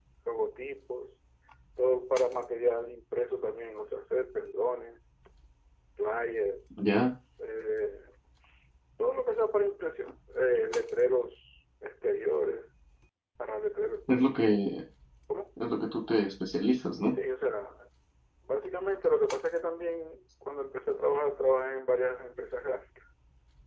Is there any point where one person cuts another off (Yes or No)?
No